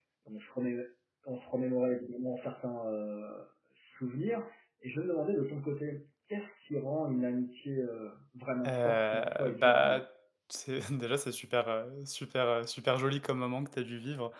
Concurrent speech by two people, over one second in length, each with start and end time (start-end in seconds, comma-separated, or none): 8.7-10.0